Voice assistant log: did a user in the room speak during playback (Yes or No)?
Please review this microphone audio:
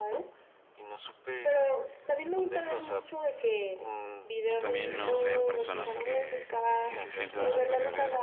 Yes